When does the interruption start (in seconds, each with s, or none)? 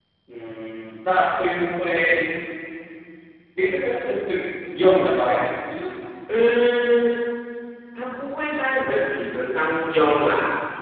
none